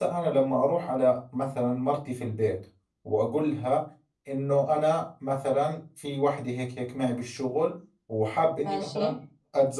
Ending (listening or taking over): listening